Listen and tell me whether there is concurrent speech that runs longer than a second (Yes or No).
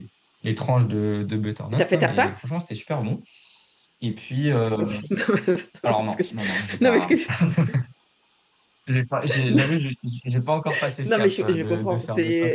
Yes